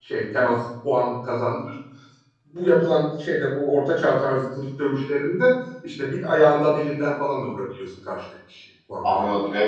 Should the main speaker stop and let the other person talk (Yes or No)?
Yes